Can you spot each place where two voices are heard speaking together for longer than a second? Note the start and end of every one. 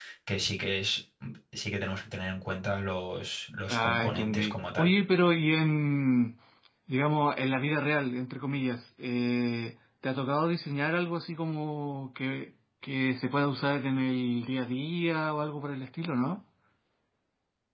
3.7-4.9

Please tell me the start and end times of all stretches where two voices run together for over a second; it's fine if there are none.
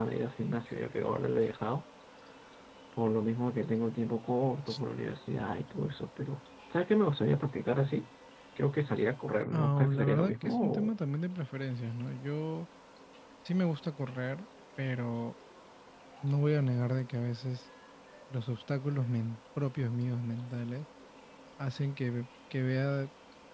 9.5-10.9

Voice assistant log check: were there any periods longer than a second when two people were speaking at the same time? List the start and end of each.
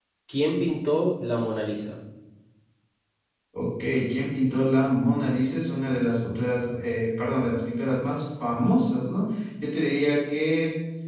none

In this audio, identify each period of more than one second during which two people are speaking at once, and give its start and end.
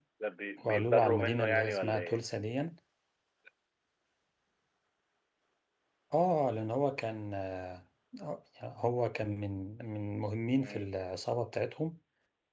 0.7-2.2

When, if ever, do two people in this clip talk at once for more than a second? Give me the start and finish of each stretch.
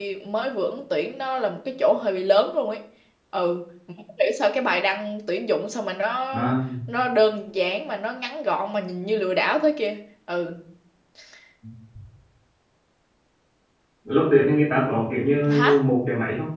none

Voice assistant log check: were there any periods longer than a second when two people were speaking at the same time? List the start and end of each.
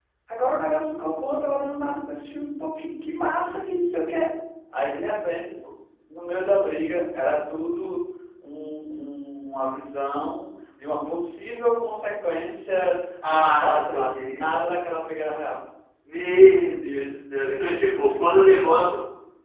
13.3-14.5

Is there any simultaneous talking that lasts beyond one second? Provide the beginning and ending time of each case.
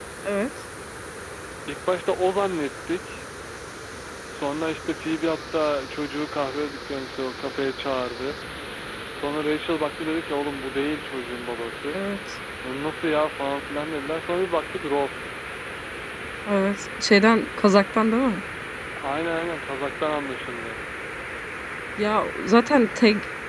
none

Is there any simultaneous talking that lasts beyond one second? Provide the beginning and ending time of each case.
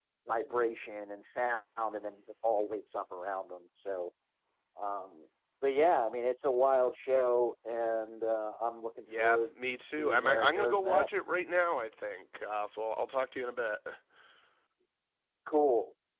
9.2-11.1

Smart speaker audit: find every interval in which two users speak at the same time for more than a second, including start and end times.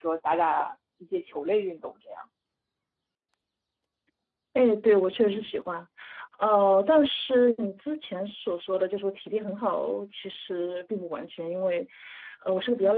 none

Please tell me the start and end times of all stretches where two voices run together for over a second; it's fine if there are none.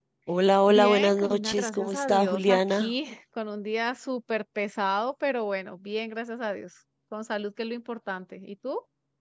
0.7-2.9

